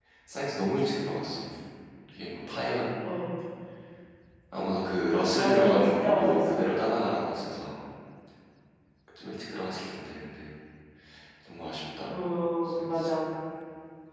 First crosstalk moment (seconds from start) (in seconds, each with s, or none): 5.4 s